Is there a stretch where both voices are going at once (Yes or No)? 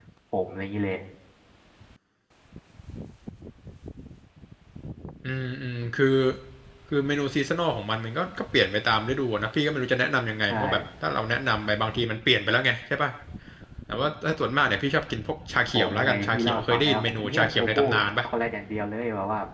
Yes